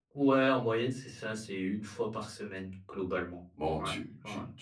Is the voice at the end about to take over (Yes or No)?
Yes